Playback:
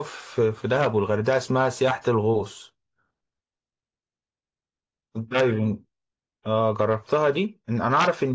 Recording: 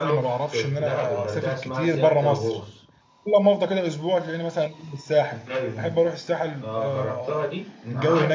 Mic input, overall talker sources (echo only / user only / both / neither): both